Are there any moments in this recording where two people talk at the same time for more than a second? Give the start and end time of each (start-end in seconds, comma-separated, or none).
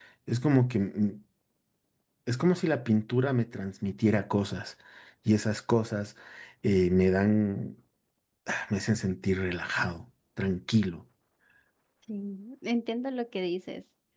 none